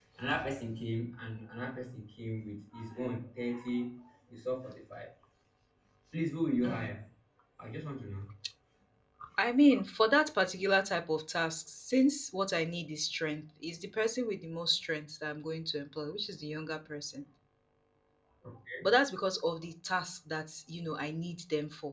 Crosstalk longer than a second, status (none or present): none